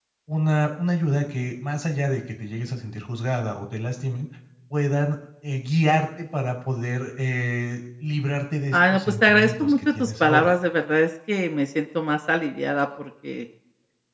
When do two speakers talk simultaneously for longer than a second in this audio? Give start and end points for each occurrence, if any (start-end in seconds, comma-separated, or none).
8.7-10.5